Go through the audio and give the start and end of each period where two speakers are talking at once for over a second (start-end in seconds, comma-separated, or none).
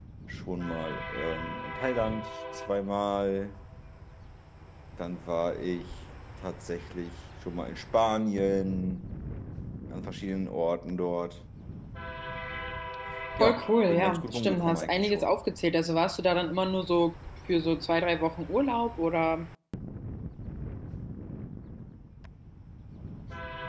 13.9-15.3